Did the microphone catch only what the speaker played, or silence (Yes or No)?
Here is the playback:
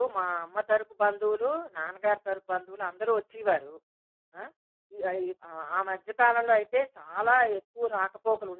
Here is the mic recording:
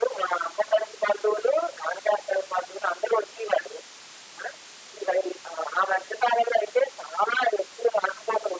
Yes